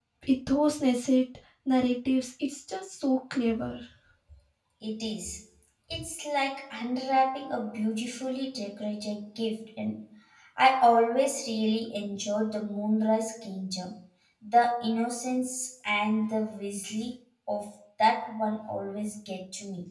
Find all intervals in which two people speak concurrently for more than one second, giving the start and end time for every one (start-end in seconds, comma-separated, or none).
none